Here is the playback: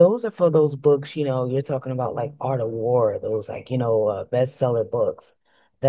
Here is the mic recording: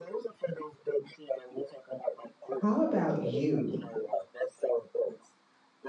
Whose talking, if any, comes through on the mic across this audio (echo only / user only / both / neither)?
both